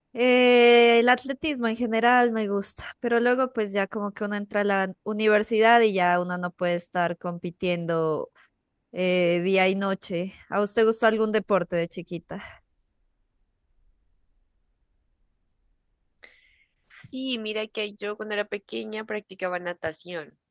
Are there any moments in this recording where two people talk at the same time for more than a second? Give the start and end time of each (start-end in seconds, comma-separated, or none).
none